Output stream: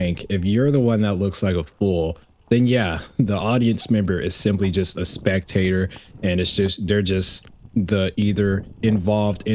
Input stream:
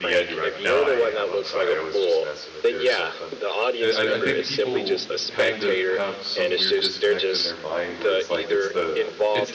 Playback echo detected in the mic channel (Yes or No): Yes